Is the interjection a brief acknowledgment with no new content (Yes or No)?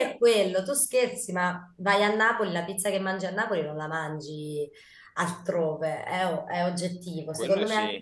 Yes